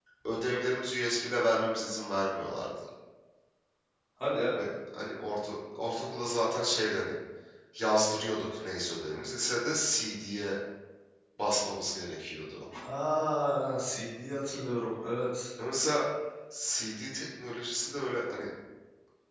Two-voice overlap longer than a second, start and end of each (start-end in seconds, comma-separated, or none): none